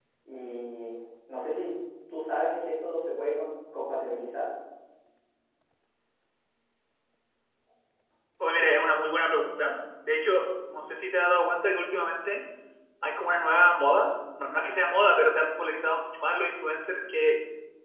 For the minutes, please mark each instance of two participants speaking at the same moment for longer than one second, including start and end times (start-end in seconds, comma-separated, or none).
none